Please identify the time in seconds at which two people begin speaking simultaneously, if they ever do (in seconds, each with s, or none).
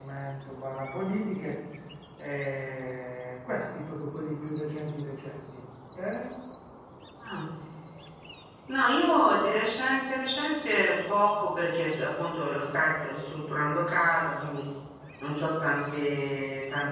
none